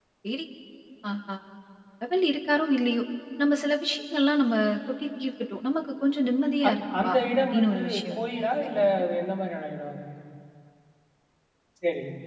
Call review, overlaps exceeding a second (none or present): present